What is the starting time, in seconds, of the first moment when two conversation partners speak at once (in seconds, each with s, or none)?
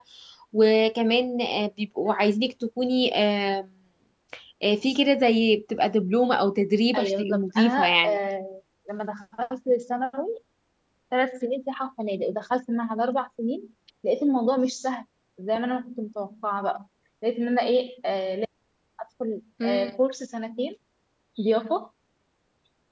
6.9 s